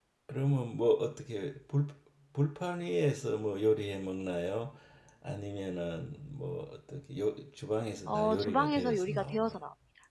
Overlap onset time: 8.1 s

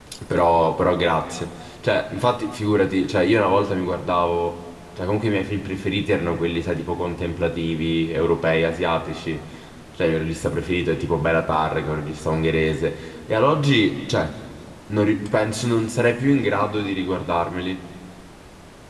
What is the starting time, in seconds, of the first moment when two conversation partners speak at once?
none

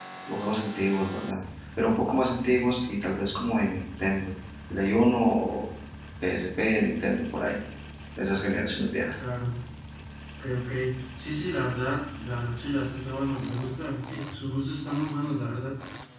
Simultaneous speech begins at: none

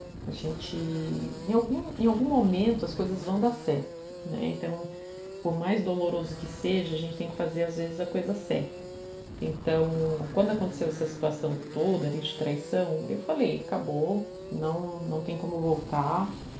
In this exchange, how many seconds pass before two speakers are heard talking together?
none

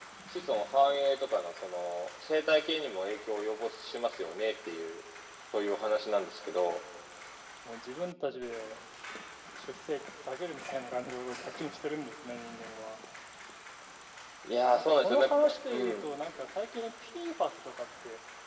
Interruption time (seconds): 14.6 s

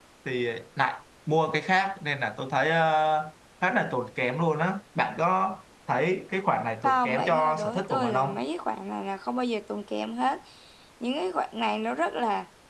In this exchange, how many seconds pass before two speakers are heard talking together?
6.8 s

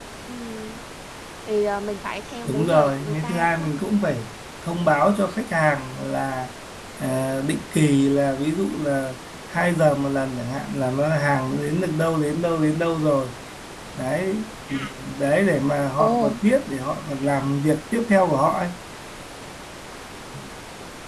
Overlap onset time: 2.4 s

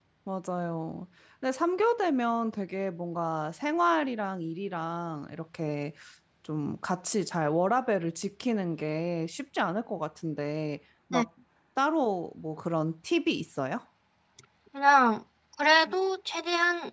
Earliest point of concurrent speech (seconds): none

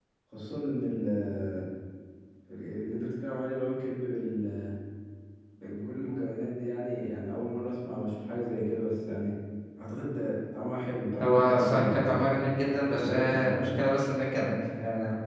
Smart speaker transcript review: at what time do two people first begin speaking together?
11.2 s

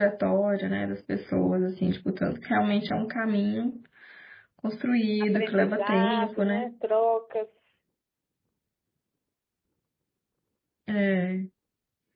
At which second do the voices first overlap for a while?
5.3 s

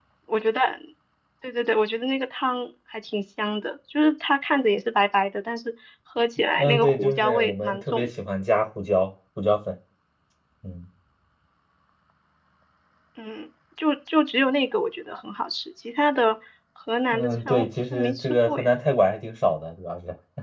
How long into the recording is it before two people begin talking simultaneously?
6.6 s

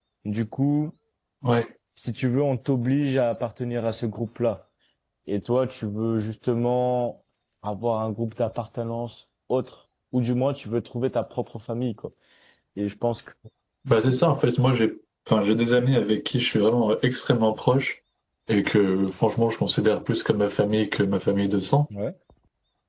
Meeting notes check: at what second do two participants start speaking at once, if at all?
none

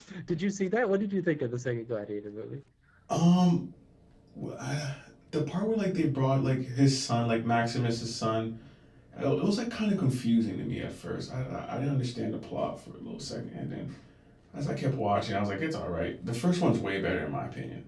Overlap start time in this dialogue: none

